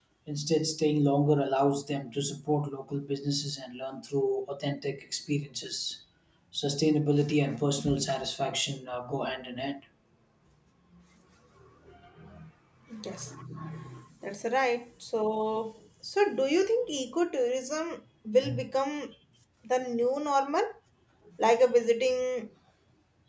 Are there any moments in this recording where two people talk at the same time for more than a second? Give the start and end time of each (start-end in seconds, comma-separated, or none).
none